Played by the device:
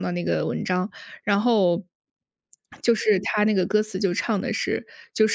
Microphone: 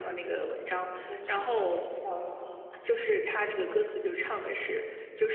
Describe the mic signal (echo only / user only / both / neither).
both